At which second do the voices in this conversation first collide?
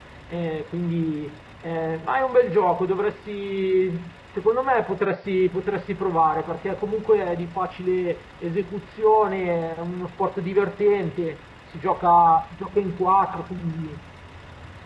none

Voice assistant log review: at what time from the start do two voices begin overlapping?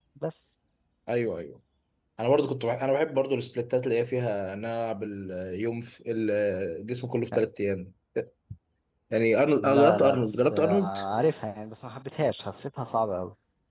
9.6 s

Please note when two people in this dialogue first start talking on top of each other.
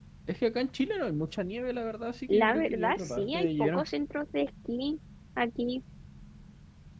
2.3 s

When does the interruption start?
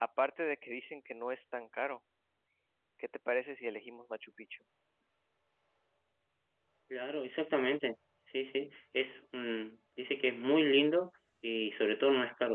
none

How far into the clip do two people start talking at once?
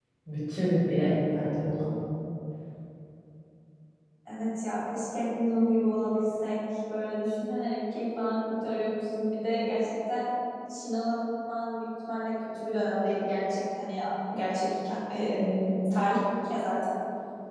none

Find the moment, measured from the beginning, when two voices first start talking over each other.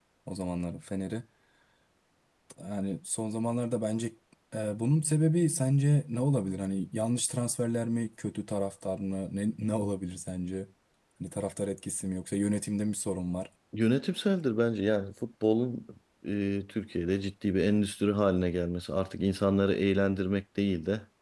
none

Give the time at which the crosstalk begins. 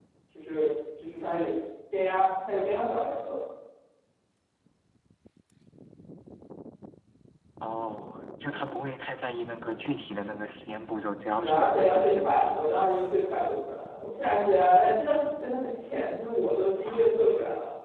11.4 s

